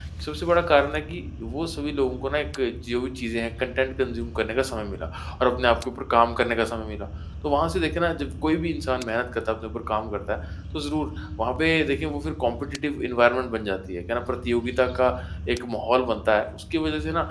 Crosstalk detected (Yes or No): No